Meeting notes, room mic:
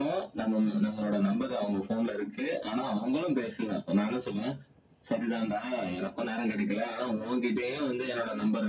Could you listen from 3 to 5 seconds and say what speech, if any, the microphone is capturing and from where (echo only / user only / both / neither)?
echo only